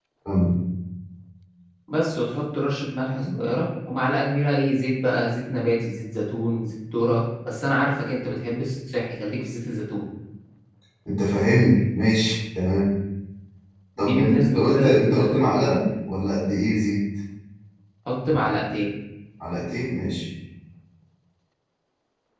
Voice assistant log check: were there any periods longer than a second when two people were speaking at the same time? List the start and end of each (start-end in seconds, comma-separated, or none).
14.0-15.5